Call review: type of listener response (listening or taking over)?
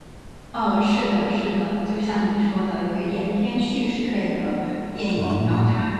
listening